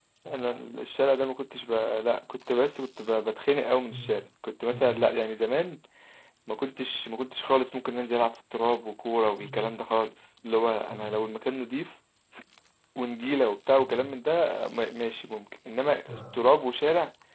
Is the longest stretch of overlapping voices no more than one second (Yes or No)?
Yes